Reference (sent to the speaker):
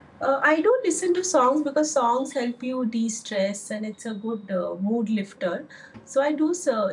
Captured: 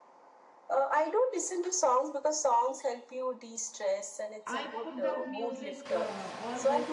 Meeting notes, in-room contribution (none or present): present